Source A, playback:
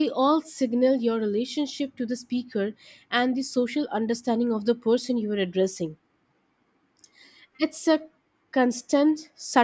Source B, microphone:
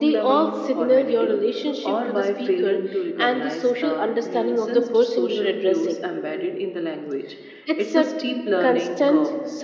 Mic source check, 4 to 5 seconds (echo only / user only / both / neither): both